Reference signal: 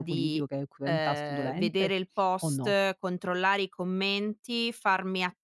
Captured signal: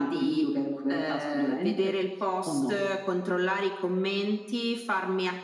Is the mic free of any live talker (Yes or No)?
Yes